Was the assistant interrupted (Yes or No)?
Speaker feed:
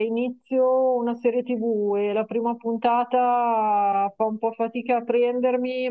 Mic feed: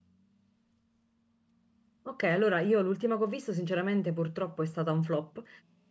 Yes